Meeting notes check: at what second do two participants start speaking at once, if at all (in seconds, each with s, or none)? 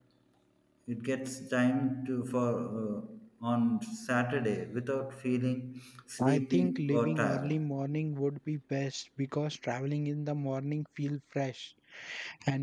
6.2 s